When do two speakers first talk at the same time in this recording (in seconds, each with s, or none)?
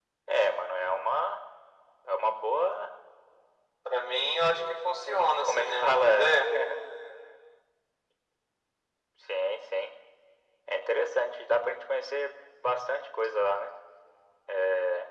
5.0 s